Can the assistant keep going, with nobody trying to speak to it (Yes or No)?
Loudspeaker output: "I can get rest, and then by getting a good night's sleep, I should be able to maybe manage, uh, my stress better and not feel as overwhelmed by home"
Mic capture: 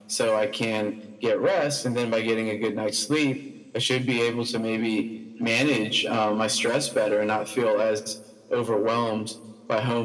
Yes